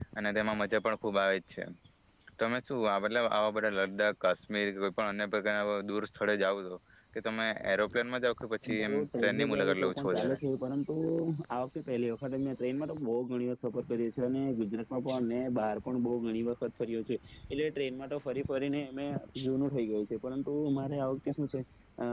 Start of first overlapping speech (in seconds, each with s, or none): 8.6 s